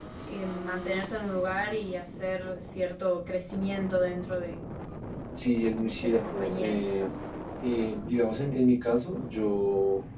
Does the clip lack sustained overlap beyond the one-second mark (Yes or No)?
No